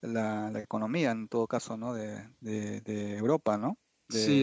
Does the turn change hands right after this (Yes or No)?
Yes